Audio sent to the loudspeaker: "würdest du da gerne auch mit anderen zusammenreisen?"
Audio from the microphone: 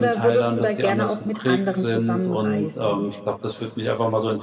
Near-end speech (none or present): present